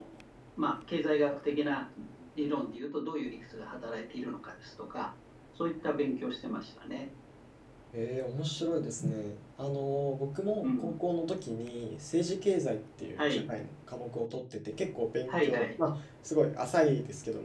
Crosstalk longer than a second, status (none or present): none